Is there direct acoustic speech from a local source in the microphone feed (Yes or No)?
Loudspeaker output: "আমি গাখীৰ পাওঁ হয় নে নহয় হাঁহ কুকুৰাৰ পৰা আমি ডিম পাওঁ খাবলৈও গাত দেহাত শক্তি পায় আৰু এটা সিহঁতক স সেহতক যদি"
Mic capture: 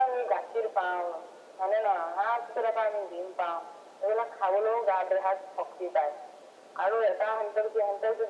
No